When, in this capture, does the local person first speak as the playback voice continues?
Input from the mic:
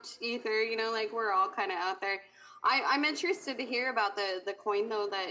none

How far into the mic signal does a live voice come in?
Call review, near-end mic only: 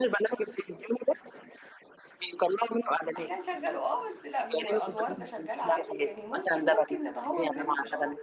3.2 s

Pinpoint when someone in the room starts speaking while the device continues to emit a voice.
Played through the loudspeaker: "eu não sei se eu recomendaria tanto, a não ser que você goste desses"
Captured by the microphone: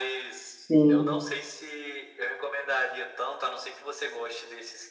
0.6 s

